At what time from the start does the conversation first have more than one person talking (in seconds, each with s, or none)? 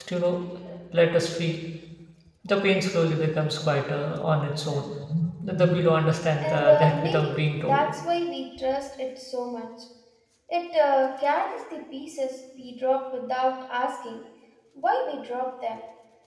6.4 s